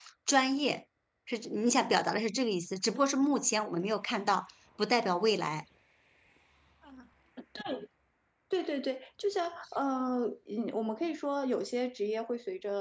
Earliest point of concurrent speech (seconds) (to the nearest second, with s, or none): none